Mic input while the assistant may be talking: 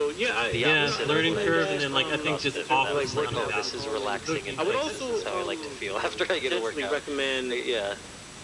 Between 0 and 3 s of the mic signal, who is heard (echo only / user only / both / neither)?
both